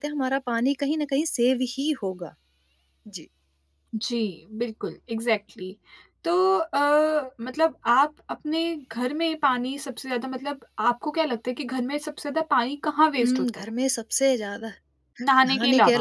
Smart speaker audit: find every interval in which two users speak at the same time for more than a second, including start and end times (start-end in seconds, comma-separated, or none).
none